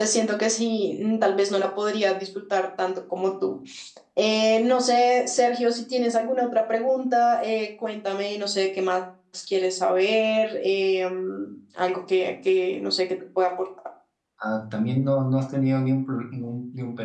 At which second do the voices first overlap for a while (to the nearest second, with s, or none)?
none